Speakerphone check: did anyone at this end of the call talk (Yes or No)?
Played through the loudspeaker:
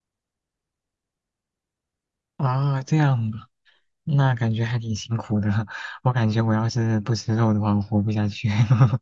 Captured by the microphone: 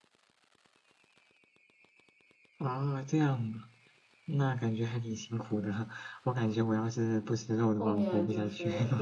Yes